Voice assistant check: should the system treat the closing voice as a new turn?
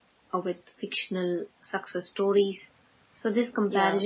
No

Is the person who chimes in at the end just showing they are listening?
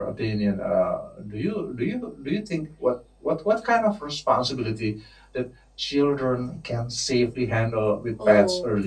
No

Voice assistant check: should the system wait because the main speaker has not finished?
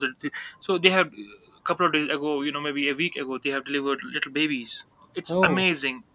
Yes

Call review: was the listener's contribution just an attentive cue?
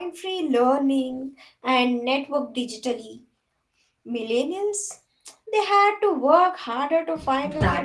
No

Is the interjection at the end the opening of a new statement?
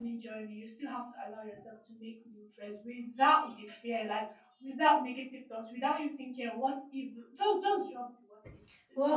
Yes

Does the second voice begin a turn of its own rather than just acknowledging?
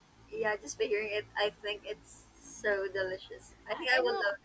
Yes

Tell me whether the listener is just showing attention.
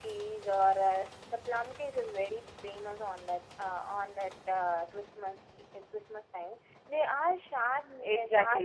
No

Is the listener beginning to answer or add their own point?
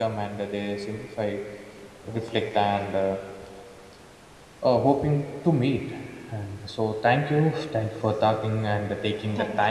No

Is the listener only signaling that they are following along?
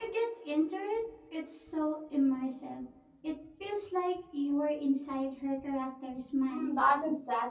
No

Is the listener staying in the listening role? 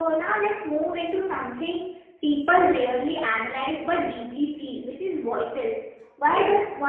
Yes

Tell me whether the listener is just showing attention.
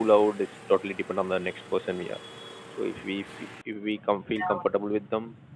Yes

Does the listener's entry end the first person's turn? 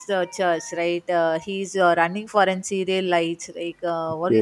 No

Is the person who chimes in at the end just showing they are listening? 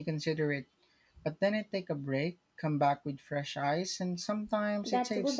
No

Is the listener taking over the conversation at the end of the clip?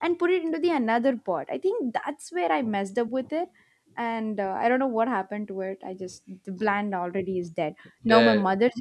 No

